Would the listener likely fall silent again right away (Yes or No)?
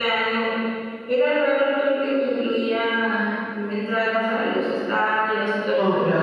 Yes